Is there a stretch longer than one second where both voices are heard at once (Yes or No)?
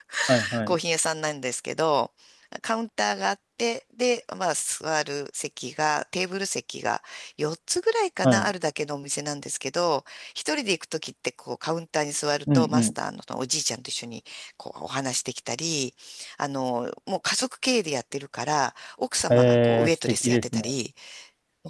Yes